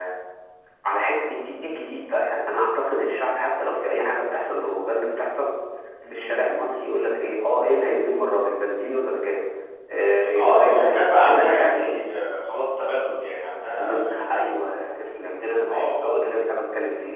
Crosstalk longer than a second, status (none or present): present